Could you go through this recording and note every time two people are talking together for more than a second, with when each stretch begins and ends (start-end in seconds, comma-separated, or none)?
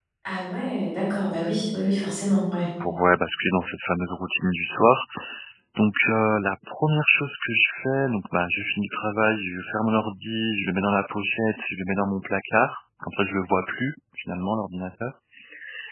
none